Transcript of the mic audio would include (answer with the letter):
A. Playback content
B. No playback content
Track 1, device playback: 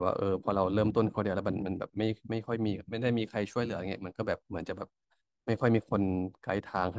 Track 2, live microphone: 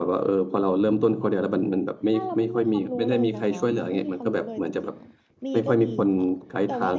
A